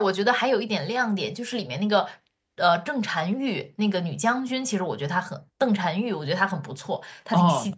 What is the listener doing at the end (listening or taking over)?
taking over